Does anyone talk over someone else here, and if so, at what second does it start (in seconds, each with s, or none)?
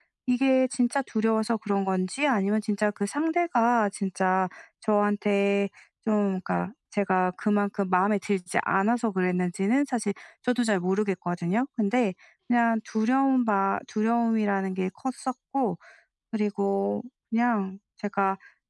none